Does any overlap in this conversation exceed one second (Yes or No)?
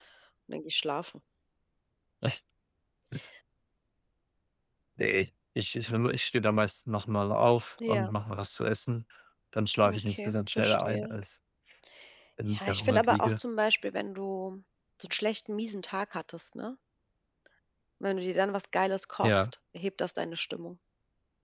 Yes